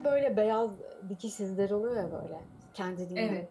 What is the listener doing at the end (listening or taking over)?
listening